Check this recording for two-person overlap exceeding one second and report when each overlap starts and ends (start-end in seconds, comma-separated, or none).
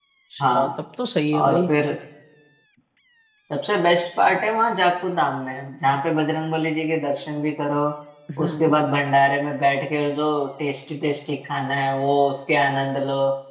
none